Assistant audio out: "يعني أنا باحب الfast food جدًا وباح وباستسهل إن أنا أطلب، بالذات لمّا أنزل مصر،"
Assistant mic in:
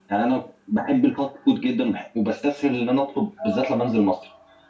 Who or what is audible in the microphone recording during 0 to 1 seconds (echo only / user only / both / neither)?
echo only